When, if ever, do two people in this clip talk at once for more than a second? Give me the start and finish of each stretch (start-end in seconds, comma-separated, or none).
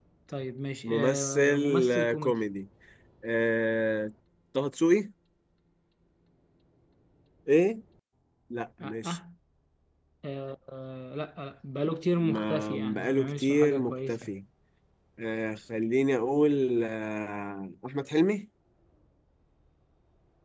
0.8-2.4, 12.2-14.3